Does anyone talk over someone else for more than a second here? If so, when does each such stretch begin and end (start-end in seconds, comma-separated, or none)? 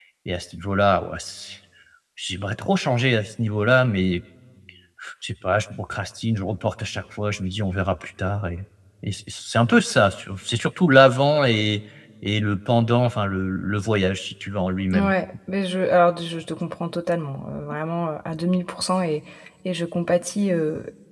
none